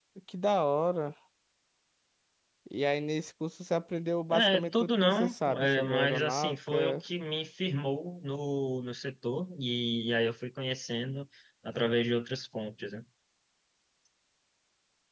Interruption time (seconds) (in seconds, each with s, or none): 4.3 s